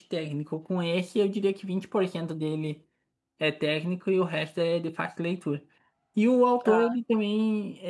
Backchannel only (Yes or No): Yes